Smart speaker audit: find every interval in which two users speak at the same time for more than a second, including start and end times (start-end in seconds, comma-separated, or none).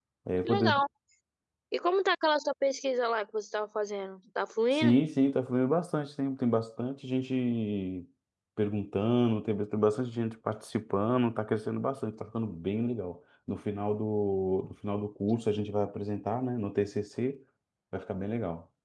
none